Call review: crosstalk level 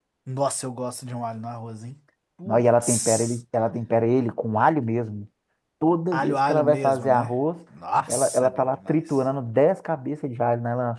present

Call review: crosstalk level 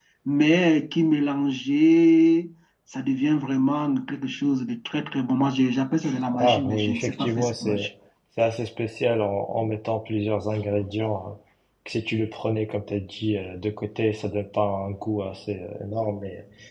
present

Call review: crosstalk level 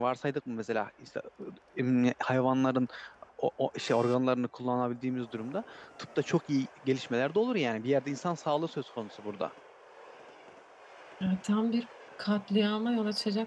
none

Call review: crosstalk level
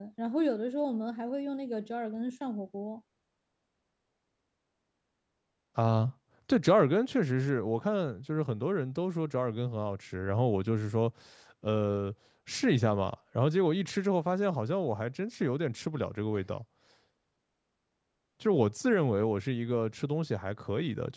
none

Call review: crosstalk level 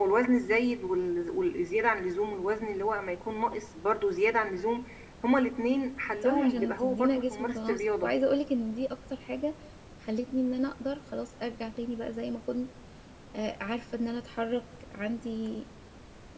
present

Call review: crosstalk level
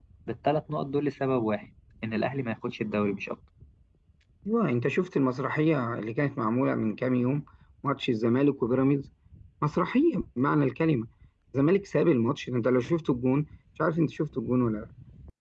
none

